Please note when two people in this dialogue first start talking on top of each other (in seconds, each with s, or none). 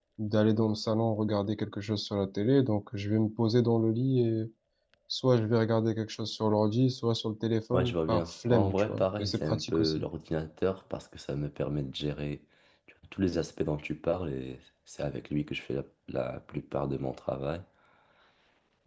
7.7 s